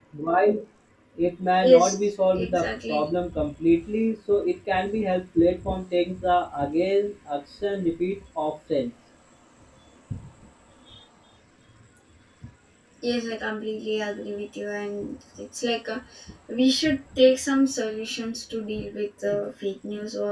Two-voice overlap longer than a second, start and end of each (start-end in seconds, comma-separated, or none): 1.6-3.1